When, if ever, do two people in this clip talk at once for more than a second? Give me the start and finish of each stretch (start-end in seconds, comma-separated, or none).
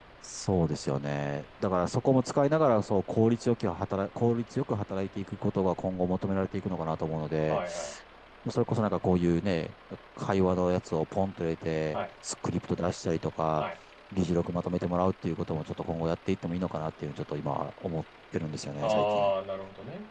none